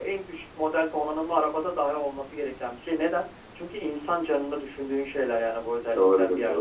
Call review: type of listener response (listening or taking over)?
taking over